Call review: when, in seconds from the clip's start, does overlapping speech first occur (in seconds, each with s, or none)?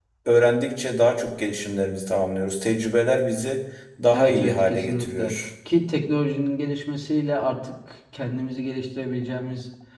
4.1 s